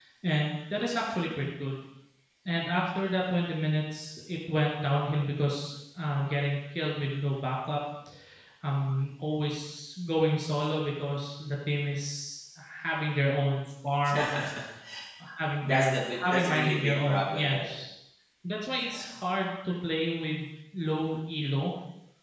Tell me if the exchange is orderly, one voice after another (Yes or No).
No